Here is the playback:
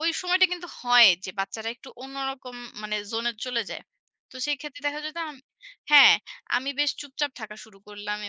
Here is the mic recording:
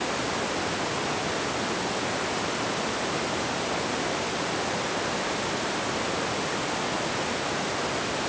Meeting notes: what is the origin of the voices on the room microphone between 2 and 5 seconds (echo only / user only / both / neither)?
neither